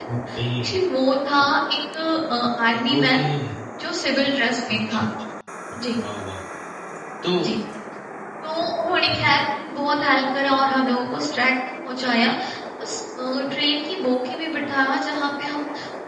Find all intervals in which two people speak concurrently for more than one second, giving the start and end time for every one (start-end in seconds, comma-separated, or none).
none